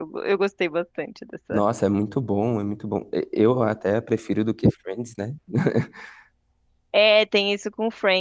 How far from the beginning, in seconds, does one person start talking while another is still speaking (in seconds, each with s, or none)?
none